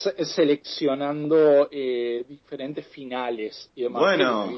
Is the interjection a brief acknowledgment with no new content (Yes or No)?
Yes